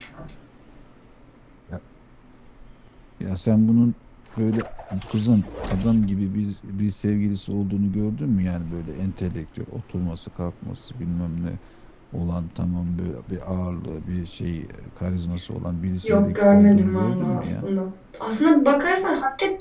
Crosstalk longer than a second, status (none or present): present